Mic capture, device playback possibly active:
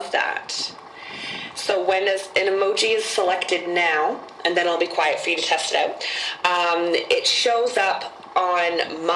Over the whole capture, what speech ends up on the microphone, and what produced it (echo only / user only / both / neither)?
echo only